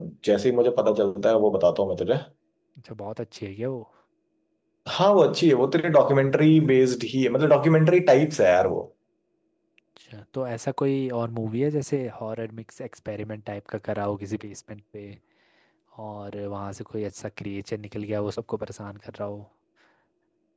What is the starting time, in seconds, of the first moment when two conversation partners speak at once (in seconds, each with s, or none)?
none